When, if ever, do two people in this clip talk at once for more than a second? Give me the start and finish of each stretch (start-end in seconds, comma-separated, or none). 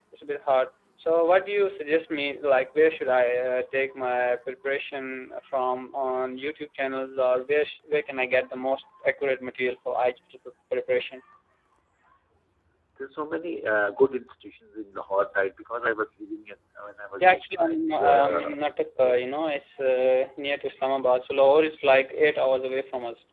17.3-18.5